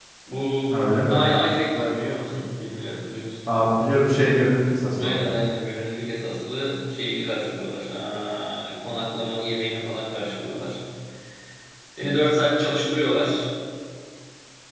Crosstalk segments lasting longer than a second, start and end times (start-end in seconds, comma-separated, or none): none